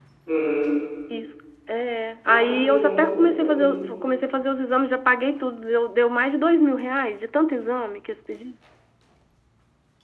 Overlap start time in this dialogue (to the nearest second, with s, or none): 2 s